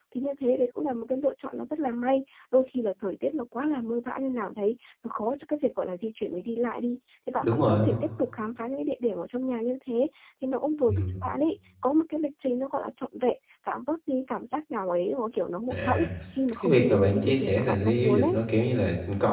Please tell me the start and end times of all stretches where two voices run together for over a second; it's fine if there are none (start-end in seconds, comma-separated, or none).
16.6-18.4